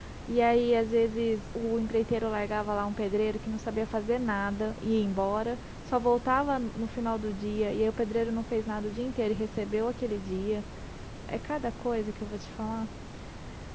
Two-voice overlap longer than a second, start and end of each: none

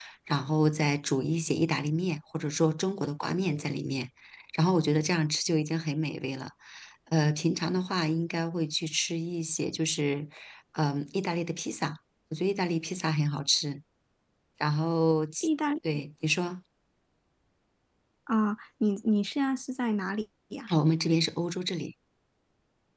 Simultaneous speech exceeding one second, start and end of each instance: none

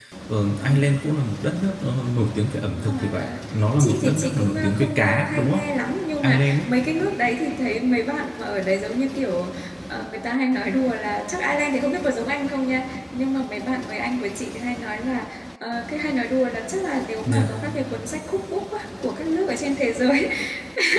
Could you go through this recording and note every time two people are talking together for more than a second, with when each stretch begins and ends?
3.8-5.6

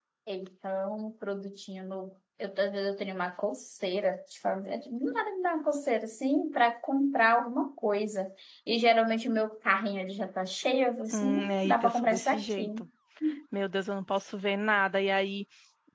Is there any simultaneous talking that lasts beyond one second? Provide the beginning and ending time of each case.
11.1-12.6

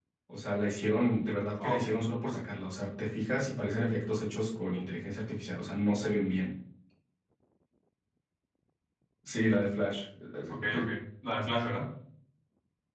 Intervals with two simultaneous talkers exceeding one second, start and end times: none

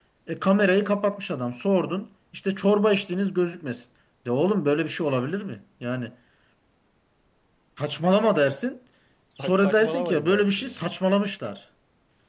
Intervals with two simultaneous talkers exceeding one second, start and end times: 9.4-10.8

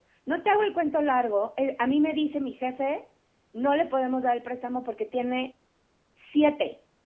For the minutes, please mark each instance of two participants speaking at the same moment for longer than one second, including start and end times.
none

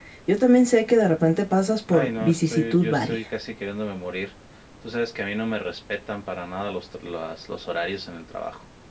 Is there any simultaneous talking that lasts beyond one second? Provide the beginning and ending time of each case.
1.9-3.2

